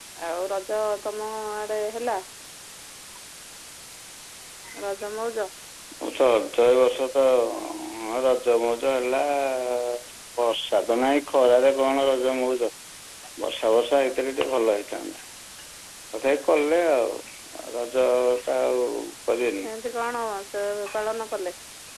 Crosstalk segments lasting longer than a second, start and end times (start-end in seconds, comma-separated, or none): none